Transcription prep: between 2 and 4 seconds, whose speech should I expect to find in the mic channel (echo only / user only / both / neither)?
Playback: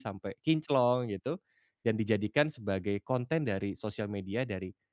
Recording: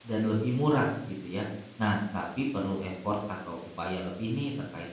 user only